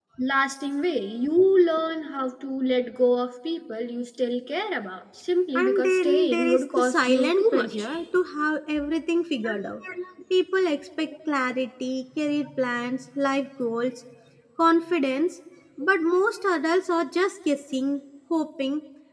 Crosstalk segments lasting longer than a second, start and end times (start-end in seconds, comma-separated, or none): 5.5-7.9